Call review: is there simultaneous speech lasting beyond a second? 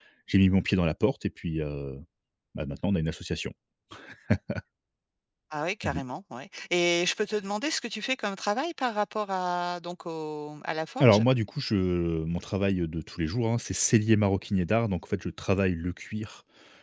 No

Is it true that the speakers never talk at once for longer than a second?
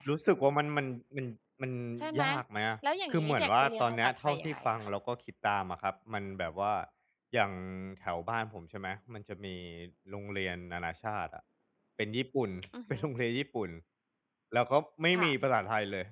No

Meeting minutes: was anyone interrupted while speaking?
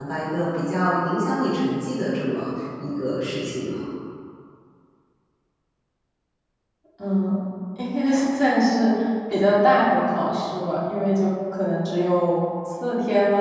No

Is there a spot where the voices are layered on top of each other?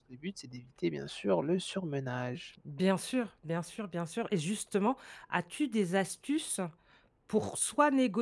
No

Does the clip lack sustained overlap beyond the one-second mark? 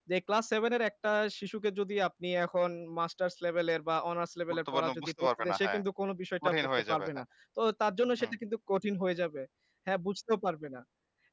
No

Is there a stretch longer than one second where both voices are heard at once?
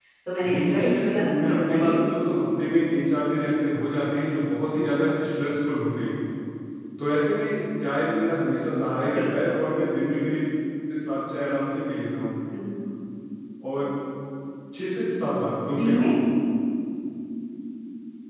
Yes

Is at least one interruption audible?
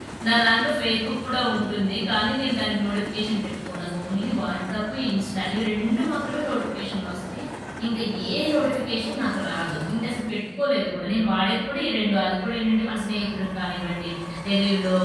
No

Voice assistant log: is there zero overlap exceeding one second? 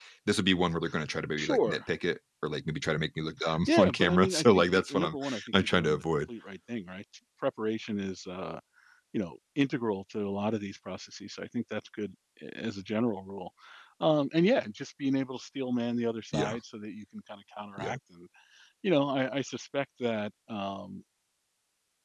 No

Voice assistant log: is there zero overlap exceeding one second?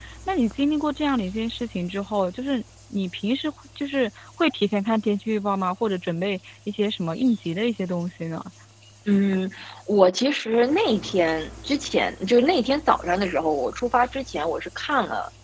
Yes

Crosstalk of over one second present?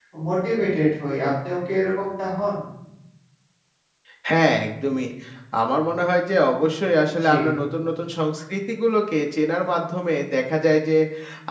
No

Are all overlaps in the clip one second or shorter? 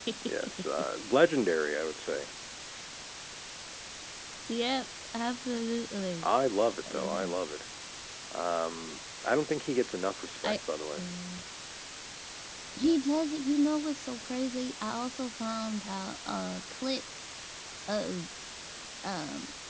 Yes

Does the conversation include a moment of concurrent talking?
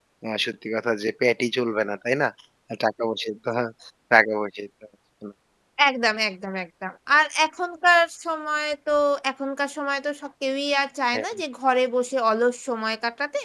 No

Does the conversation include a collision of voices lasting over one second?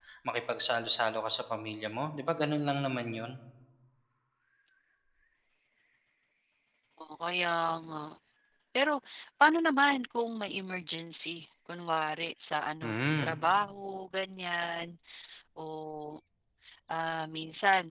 No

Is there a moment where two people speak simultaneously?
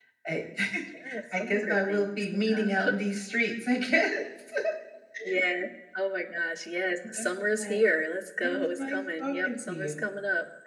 Yes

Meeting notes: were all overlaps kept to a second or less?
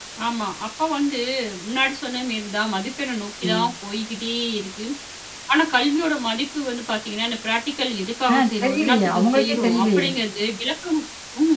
No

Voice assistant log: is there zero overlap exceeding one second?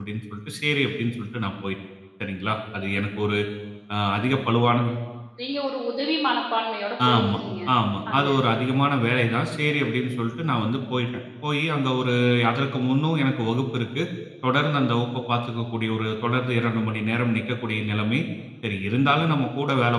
Yes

